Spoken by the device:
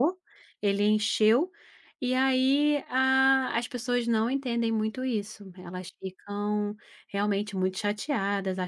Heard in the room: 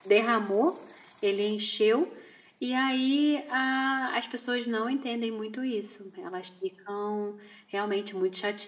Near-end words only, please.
none

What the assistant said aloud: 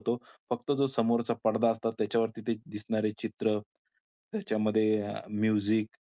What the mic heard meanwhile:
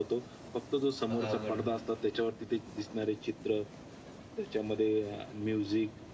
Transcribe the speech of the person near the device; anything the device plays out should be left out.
मग अवघड होतं.

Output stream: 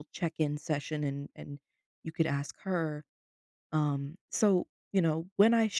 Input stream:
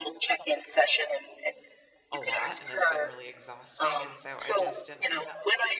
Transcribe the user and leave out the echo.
a lot and it's been really exhausting and so I just and and

